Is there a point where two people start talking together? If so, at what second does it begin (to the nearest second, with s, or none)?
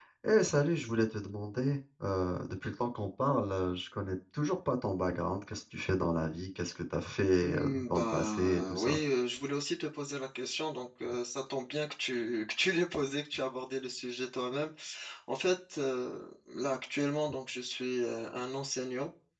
7 s